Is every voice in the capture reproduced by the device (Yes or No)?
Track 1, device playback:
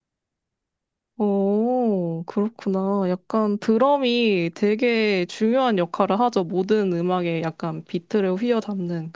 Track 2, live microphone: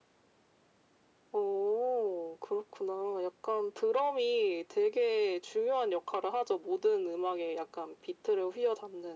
Yes